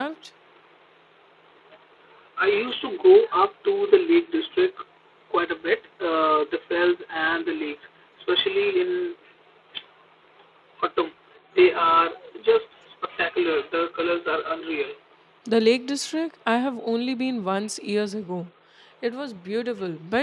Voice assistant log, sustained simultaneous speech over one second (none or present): none